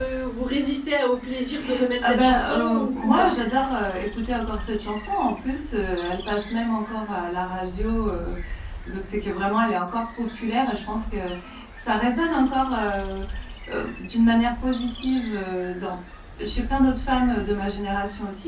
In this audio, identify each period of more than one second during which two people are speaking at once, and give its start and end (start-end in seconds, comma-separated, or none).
2.0-3.4